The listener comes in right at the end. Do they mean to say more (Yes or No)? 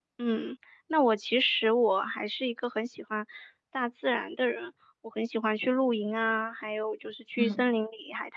No